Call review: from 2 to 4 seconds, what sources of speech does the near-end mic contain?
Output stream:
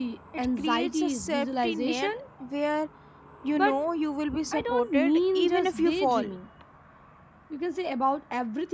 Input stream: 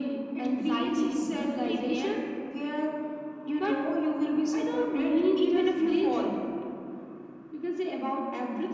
echo only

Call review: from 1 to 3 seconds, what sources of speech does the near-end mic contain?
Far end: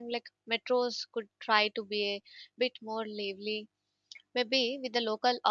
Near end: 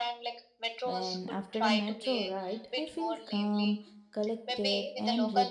both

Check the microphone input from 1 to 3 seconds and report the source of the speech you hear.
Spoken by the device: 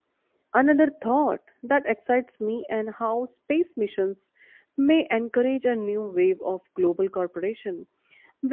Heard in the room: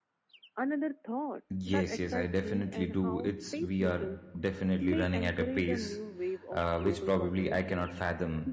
both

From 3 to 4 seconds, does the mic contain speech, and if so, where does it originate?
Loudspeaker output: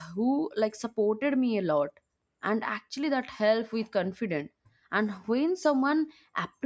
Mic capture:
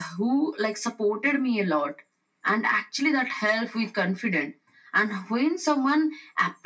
echo only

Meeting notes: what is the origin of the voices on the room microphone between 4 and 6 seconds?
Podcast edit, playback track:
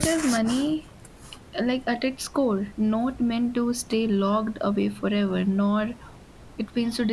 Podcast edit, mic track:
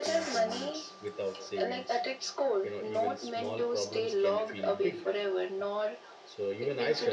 both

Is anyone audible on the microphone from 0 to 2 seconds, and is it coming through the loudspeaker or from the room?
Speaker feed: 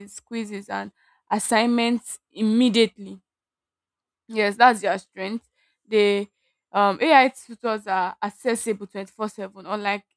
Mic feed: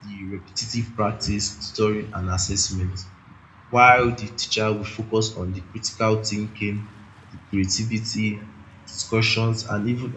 user only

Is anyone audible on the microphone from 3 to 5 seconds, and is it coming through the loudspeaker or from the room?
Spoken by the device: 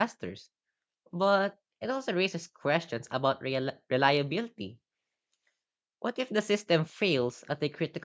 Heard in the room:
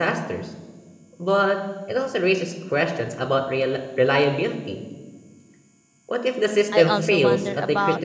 echo only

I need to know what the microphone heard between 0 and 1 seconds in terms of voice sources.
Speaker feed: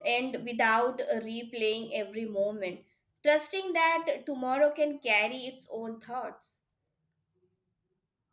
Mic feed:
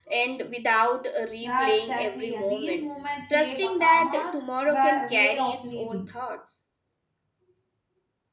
echo only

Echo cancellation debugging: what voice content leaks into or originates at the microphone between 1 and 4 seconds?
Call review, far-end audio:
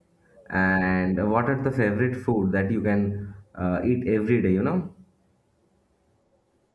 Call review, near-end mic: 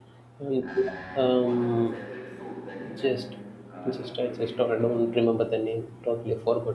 both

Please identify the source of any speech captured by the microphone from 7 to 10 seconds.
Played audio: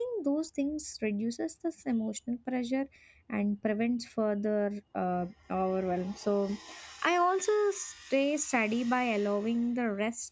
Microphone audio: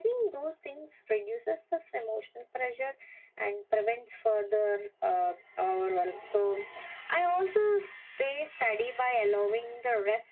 echo only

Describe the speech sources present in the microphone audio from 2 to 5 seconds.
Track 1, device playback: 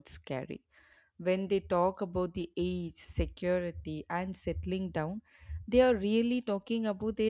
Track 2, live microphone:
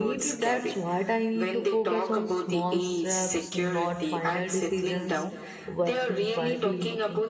both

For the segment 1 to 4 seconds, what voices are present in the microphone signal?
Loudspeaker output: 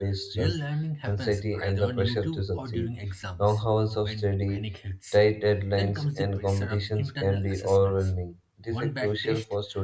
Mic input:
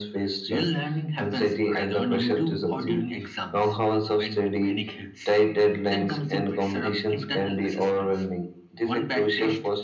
echo only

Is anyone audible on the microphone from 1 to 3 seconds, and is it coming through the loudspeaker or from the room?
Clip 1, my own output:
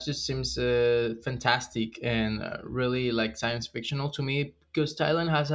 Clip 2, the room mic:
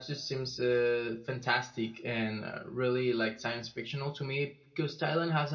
echo only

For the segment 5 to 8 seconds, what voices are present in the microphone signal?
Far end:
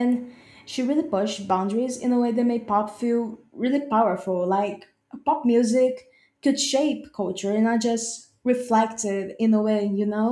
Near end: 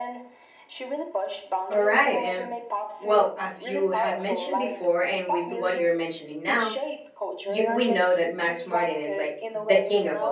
both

